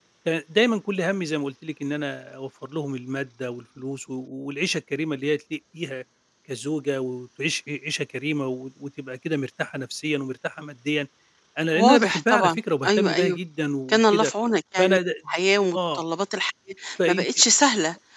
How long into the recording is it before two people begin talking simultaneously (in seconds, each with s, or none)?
11.7 s